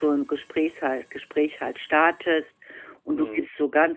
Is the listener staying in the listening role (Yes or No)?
Yes